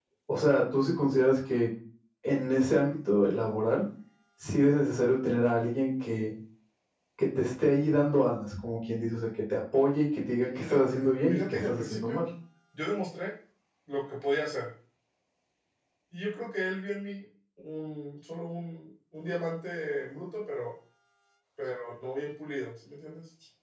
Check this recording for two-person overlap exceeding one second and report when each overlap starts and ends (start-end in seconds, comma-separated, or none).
10.4-12.2